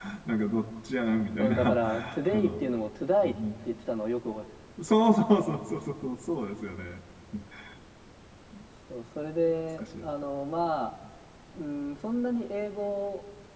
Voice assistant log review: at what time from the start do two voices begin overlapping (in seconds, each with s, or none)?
1.4 s